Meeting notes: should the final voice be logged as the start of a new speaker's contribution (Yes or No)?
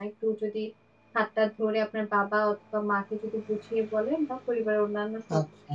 No